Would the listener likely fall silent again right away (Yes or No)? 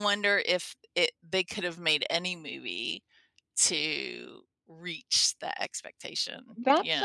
No